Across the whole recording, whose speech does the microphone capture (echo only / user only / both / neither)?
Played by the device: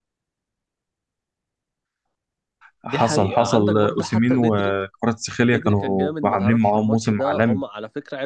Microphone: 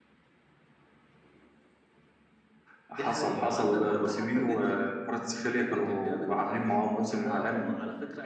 echo only